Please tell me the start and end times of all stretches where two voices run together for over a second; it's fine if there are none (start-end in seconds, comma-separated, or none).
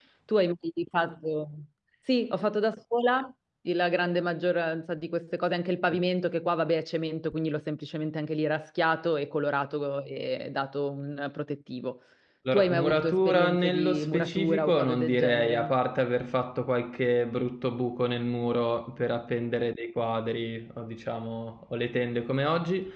12.5-15.7